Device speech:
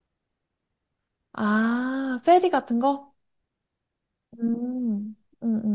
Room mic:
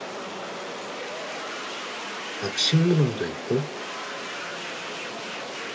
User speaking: Yes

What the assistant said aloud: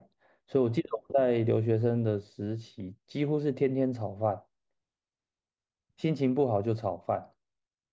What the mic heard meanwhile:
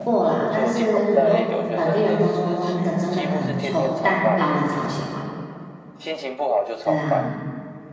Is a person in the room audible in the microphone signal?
Yes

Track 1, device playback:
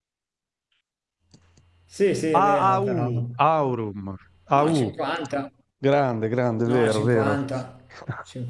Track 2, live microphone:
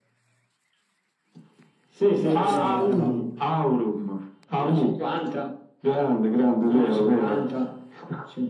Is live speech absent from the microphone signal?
No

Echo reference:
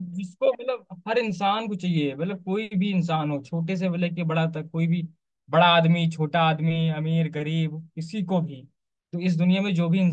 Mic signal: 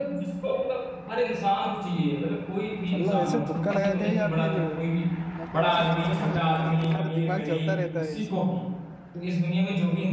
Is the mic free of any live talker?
No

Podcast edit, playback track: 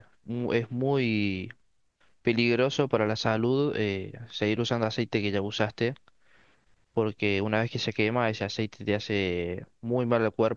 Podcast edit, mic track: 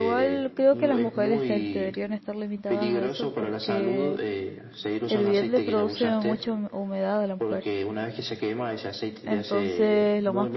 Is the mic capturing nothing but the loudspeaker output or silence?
No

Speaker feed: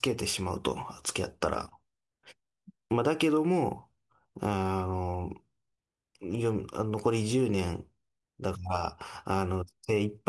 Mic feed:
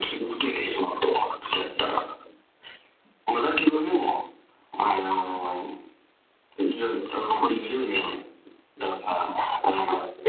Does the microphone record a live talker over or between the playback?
No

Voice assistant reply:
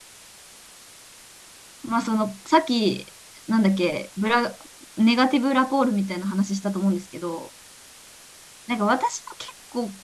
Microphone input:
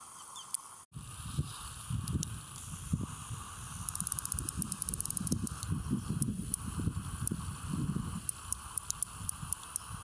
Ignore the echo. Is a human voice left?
No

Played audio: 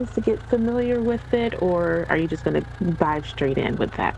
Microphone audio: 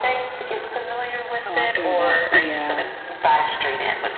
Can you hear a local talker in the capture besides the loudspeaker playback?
Yes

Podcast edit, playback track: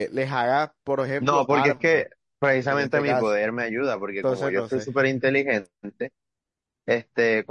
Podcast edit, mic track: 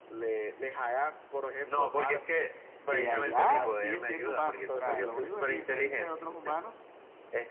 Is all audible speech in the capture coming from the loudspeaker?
No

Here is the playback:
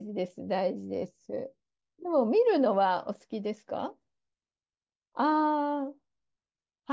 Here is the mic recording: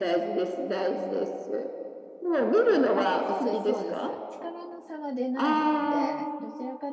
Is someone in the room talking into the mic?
Yes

